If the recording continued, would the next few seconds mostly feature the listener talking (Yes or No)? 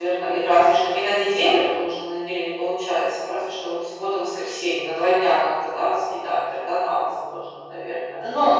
Yes